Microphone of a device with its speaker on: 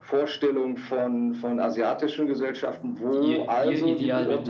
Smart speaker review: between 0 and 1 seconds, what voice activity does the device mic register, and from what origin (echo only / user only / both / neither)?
echo only